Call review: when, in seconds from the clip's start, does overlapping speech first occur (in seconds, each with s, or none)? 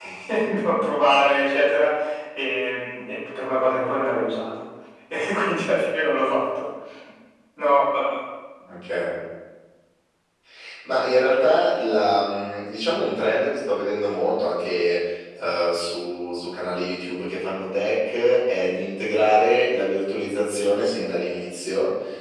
none